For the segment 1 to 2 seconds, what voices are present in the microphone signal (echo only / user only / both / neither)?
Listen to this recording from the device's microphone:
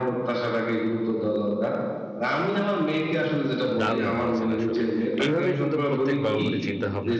echo only